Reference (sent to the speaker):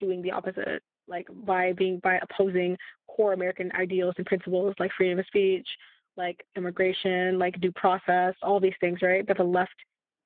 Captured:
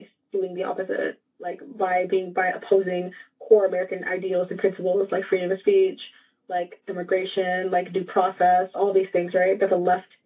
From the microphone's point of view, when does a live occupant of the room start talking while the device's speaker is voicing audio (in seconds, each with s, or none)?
none